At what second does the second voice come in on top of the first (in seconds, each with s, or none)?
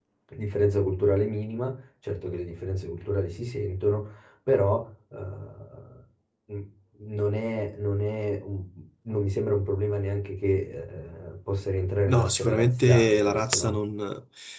12.1 s